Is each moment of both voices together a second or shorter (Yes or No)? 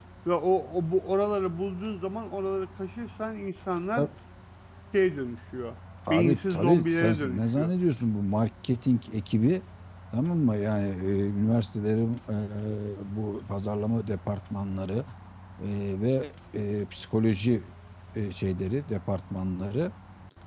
No